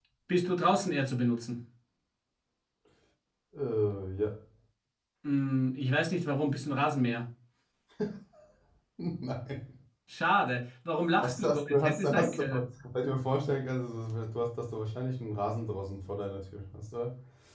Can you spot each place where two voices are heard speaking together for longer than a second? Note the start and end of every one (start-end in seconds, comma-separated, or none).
11.2-12.4